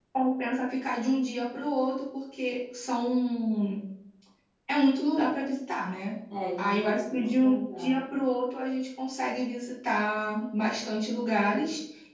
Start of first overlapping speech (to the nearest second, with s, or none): 7 s